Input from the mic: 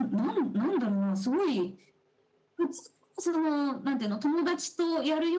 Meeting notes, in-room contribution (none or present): none